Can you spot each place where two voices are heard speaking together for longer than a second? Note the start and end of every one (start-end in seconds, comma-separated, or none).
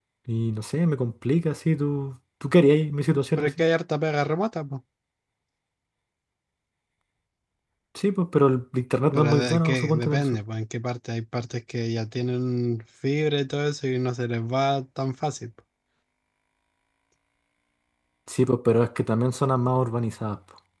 9.1-10.4